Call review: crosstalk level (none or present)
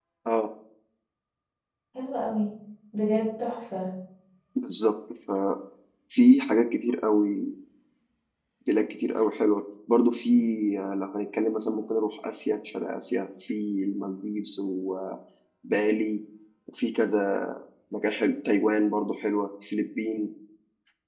none